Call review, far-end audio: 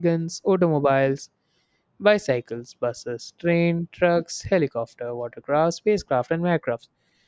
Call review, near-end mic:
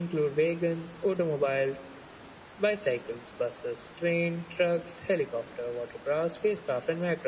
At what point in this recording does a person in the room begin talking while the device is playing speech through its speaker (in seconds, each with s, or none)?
none